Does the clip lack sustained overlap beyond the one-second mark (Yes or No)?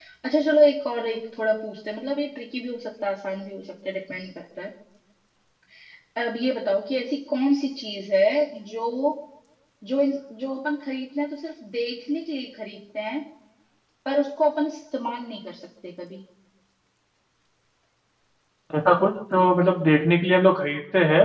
Yes